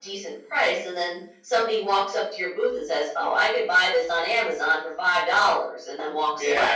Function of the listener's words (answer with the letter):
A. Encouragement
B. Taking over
B